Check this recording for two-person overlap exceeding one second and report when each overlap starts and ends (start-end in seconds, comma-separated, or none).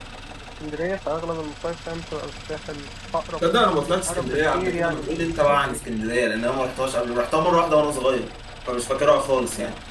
4.1-5.8